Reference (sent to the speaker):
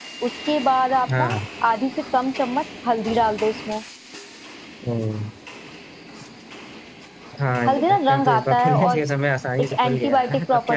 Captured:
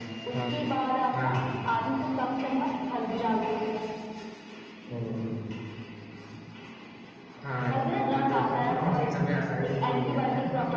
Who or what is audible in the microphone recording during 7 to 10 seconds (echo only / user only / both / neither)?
echo only